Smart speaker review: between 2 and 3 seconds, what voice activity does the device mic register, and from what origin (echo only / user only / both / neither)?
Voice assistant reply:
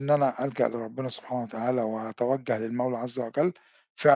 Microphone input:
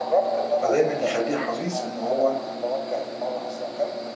both